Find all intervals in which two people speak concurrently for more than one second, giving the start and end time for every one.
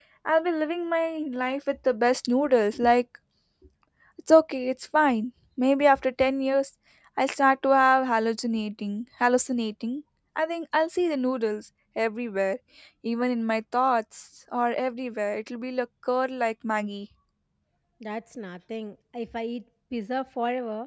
none

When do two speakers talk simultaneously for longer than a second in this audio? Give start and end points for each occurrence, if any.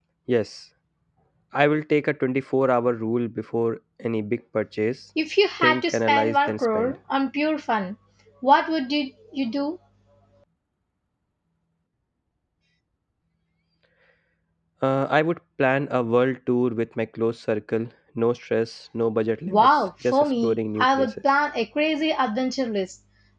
5.6-6.9, 19.5-21.1

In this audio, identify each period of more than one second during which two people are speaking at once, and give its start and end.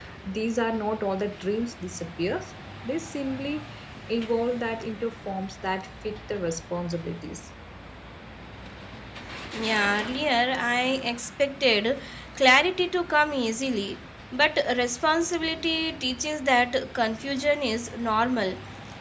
none

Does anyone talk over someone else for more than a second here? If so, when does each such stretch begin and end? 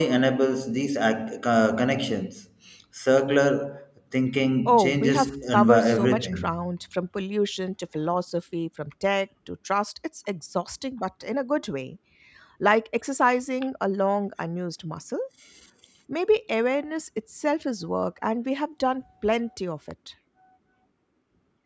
4.7-6.5

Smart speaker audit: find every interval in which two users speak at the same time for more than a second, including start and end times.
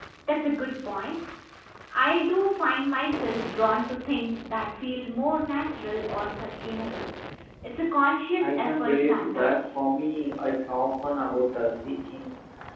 8.4-9.8

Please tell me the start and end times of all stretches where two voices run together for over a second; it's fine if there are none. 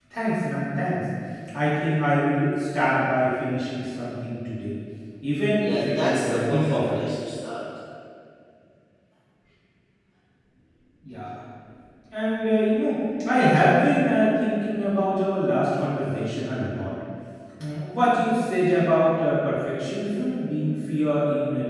5.6-7.0

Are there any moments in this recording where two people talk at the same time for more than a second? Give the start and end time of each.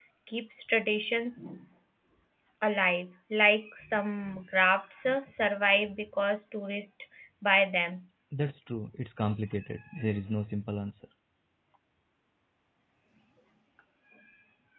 none

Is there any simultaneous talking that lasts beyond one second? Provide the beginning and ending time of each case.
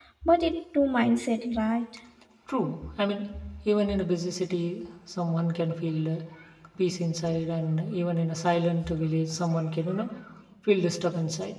none

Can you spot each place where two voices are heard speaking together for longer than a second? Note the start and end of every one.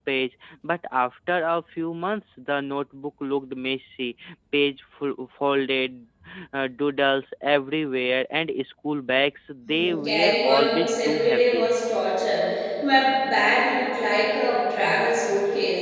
9.7-11.7

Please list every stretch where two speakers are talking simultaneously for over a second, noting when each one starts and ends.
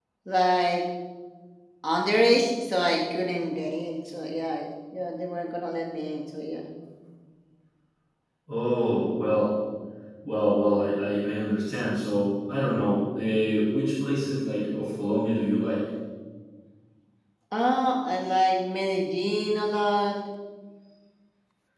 none

